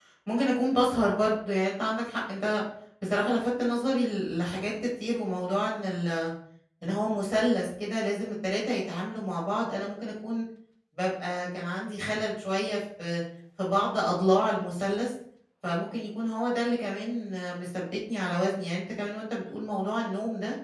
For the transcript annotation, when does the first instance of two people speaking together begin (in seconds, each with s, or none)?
none